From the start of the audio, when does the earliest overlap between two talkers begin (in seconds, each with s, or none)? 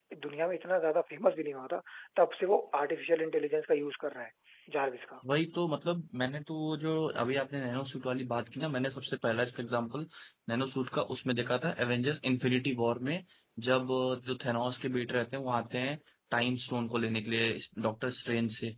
none